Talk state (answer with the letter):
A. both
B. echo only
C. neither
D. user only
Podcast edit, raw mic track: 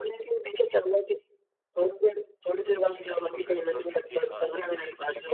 B